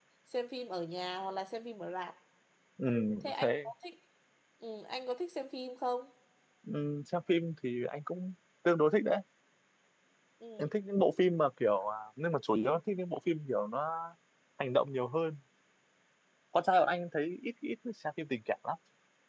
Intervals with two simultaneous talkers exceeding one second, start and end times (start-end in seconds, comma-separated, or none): none